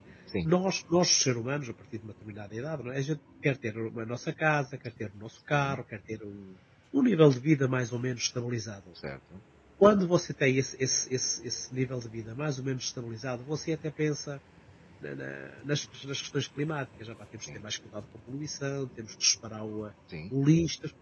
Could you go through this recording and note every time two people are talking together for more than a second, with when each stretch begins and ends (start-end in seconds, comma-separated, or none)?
none